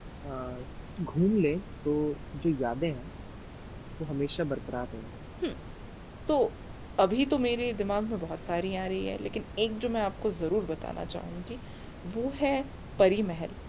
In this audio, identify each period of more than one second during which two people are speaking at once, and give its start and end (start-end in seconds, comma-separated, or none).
none